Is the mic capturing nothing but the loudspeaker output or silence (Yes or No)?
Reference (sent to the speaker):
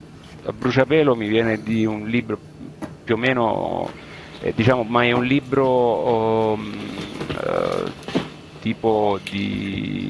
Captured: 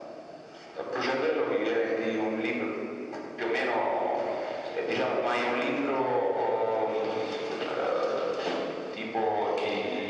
Yes